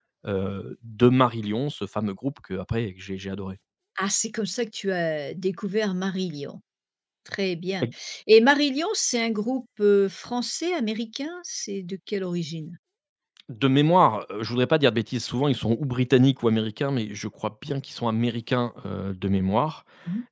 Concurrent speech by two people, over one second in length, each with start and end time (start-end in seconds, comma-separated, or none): none